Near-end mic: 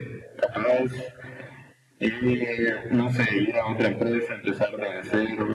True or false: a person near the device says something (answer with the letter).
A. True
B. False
B